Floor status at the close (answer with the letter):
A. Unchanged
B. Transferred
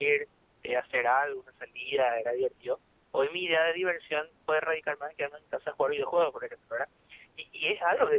A